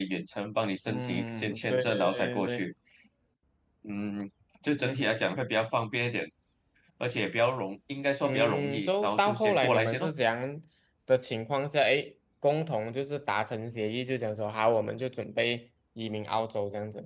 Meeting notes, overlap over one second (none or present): present